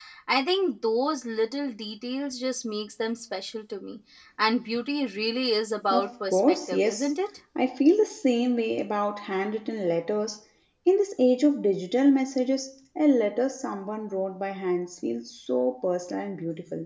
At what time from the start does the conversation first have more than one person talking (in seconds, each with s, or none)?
5.9 s